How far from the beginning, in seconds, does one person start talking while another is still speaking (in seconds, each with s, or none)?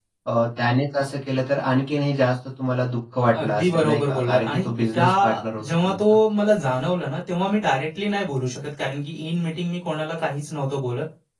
3.3 s